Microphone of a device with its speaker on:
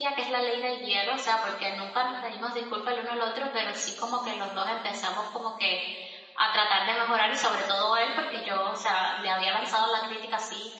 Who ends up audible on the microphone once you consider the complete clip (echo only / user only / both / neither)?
user only